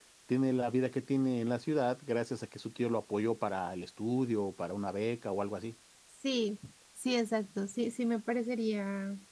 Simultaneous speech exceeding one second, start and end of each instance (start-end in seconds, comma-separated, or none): none